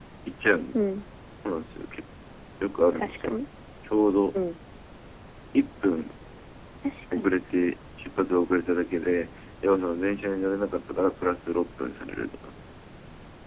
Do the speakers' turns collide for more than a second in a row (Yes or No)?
No